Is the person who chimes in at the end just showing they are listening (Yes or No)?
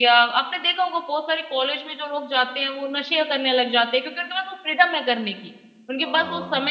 Yes